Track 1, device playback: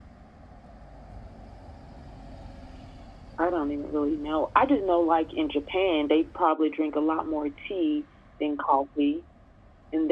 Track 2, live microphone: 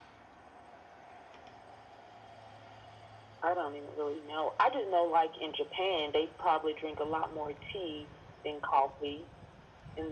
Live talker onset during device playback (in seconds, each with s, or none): none